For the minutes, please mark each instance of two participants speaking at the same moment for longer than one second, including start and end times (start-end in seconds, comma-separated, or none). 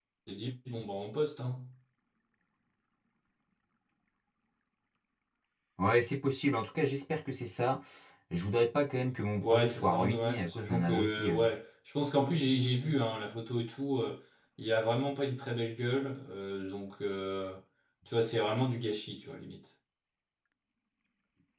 9.4-11.4